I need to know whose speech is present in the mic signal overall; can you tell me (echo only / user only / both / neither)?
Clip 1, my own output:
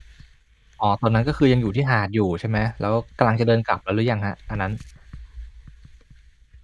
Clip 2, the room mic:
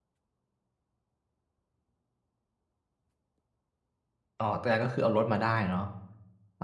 user only